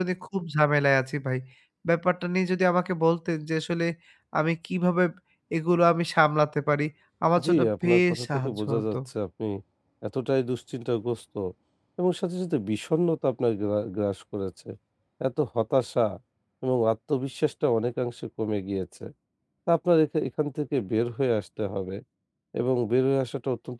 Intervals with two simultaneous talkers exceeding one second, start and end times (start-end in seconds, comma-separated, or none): 7.4-9.0